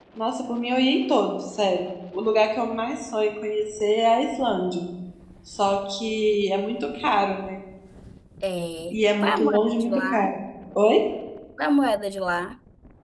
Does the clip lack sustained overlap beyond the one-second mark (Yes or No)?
No